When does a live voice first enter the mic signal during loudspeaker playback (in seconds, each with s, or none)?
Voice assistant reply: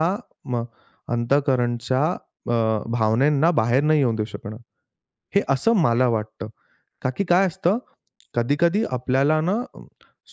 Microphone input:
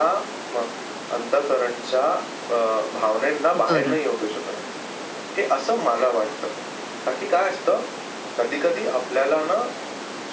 3.6 s